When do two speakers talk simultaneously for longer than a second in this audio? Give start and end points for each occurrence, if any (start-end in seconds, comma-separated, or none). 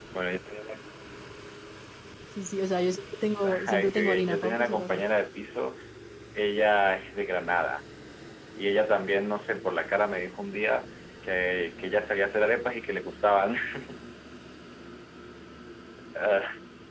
3.7-5.0